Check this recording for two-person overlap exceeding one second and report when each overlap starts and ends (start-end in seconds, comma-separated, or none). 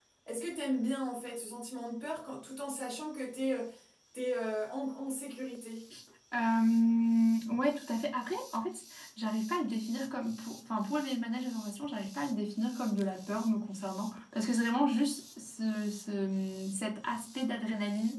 none